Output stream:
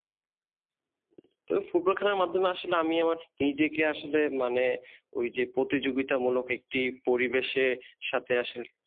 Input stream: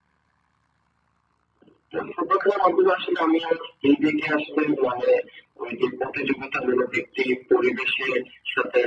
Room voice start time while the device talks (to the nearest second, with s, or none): none